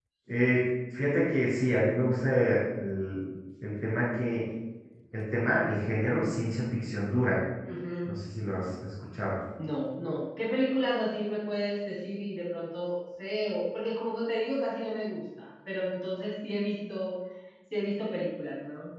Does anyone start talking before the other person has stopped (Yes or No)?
No